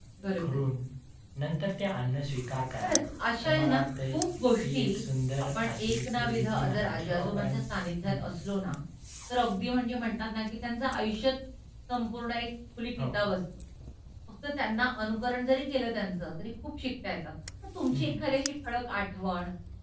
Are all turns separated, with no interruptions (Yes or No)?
No